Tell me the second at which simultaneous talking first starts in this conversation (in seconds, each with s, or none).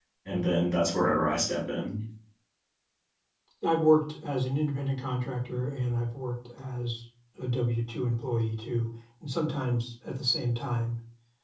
none